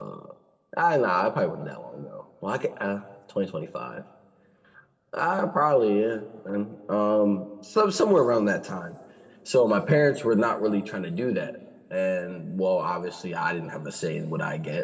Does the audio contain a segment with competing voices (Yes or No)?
No